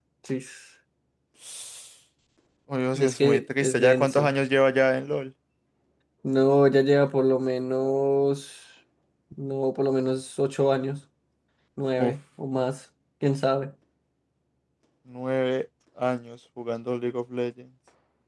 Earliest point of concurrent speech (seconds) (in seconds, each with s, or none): 3.0 s